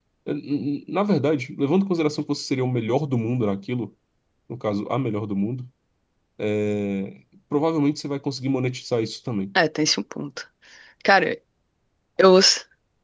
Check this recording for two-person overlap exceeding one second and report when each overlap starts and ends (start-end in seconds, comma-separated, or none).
none